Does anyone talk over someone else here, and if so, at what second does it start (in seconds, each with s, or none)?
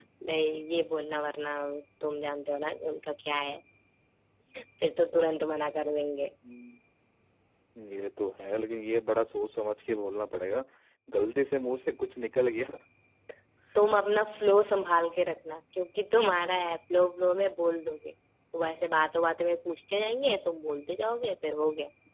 none